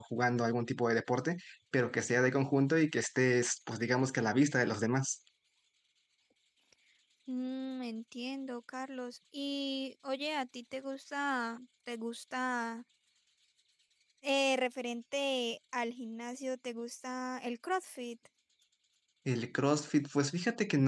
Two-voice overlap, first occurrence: none

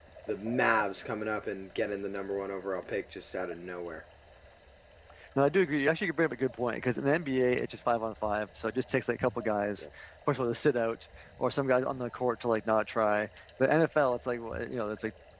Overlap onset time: none

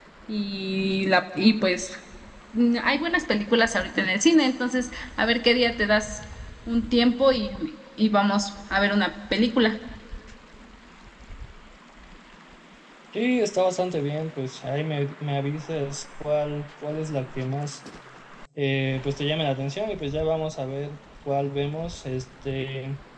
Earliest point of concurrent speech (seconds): none

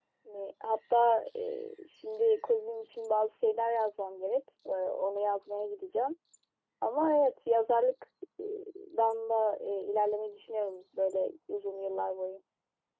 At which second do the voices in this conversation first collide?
none

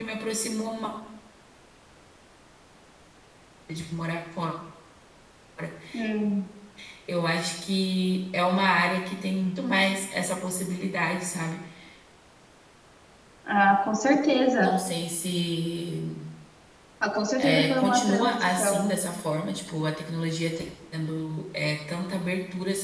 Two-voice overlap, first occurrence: 17.4 s

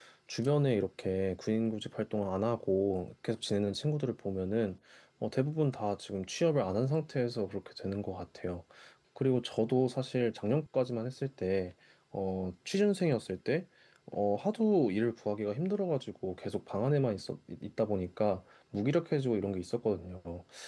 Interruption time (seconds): none

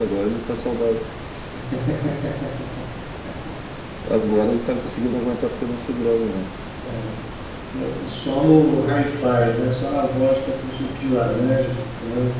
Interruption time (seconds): none

